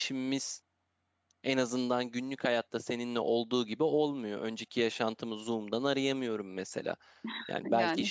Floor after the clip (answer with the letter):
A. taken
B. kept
B